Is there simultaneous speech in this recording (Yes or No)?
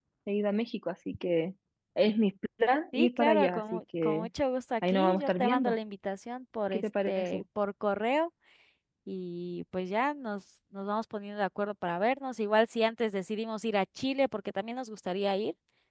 Yes